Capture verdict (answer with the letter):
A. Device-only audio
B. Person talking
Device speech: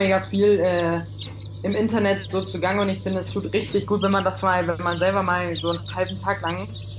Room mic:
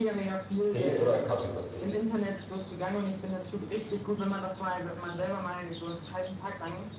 B